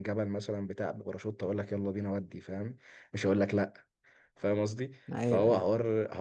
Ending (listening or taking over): listening